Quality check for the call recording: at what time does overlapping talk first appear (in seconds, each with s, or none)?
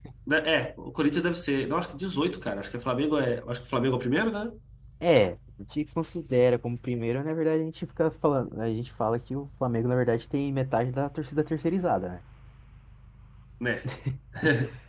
none